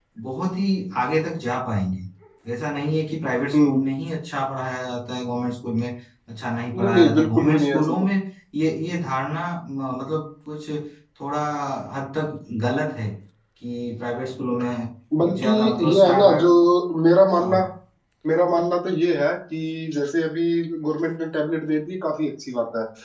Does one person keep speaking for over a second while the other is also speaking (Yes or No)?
Yes